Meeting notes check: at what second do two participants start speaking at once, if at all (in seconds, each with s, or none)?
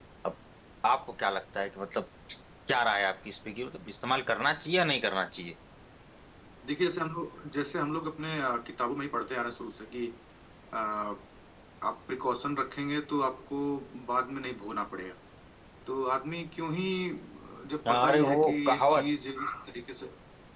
17.9 s